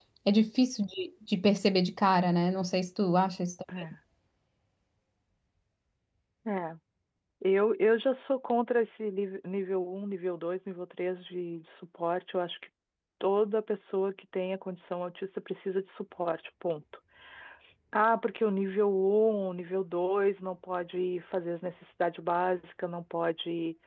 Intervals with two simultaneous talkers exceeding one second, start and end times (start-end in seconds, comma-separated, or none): none